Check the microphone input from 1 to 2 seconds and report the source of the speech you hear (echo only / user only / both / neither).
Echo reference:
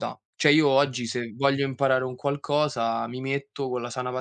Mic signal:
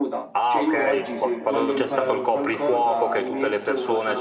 both